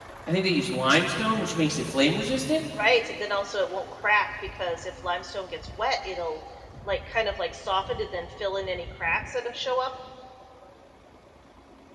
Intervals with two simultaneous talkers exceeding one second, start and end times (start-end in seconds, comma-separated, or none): none